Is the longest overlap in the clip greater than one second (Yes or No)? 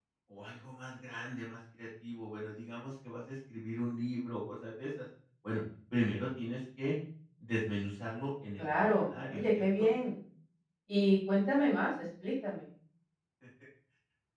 Yes